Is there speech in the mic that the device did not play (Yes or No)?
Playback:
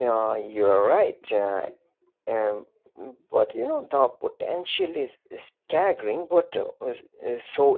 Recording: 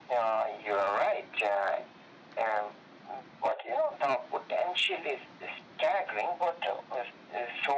No